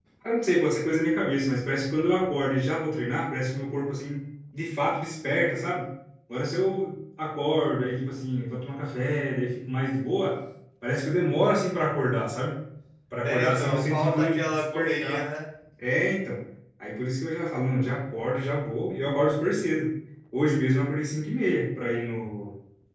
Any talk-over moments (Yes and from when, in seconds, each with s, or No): Yes, from 13.2 s